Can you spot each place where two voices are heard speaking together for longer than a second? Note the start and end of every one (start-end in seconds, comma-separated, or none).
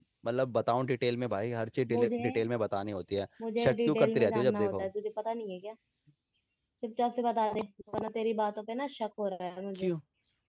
3.6-4.8